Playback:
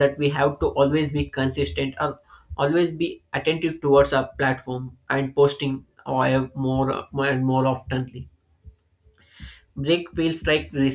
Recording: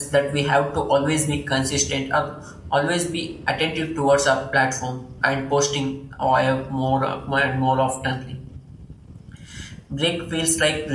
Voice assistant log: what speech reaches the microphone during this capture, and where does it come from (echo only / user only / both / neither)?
echo only